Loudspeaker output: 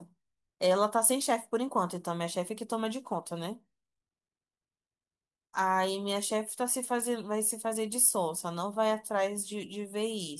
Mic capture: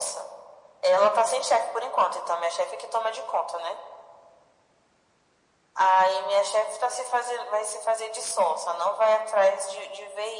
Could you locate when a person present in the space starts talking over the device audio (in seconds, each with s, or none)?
none